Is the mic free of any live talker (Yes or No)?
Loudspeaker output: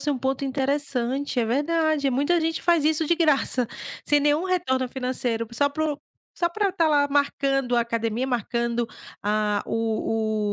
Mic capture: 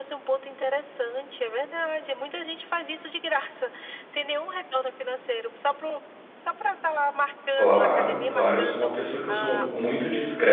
No